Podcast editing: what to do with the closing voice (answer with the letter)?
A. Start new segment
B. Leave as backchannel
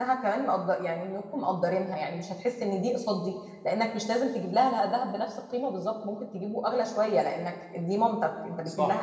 A